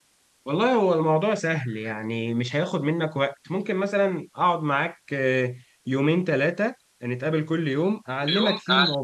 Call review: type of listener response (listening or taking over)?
listening